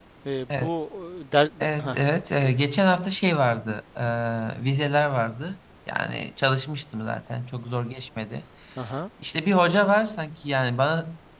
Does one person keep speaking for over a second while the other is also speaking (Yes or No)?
No